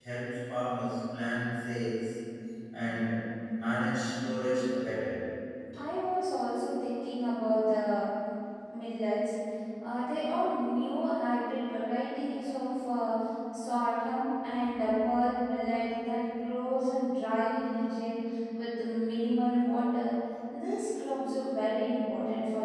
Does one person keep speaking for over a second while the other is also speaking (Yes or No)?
No